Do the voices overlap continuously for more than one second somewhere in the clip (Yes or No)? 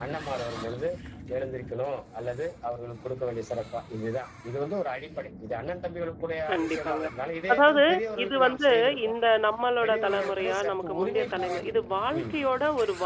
Yes